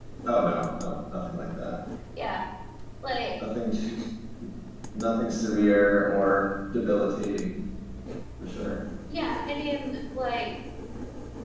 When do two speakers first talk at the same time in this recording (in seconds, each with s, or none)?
none